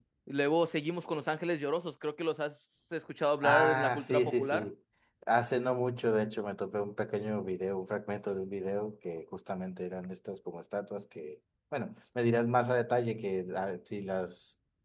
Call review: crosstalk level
present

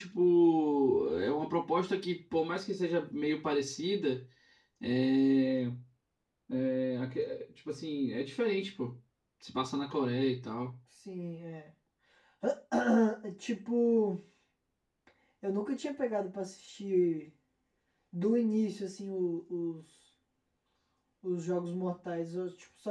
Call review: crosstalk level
none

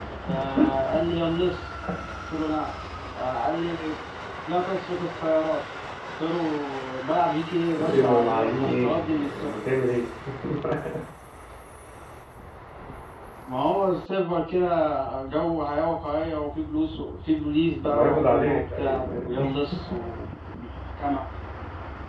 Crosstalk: present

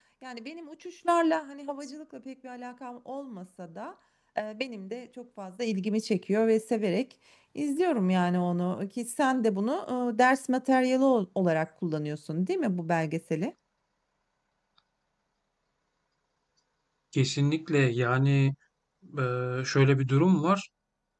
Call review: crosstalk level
none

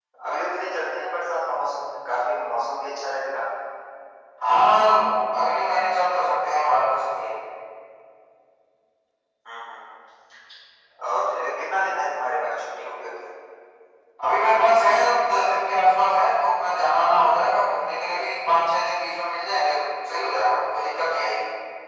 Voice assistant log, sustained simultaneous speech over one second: none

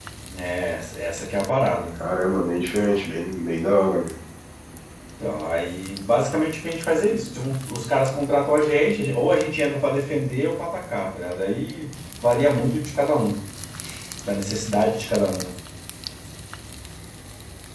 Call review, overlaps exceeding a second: none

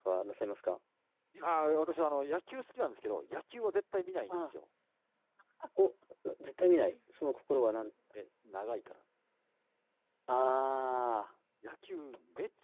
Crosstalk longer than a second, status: none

